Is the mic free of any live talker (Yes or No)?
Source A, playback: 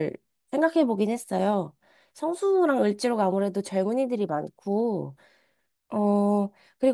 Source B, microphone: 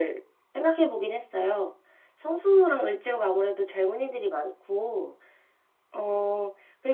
Yes